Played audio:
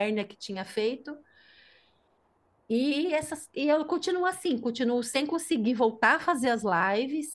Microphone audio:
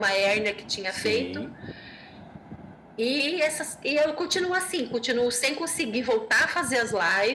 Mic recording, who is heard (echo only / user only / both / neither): both